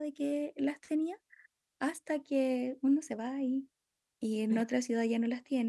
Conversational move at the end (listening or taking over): listening